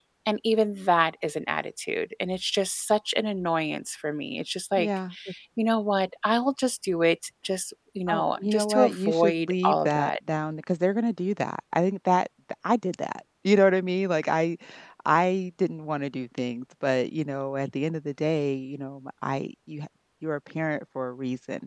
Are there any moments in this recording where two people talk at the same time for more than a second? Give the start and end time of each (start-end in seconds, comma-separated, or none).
8.1-10.2